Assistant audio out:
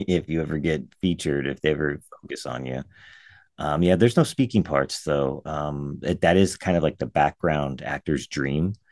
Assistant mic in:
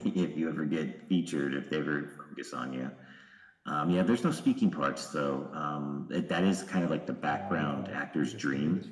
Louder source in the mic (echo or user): echo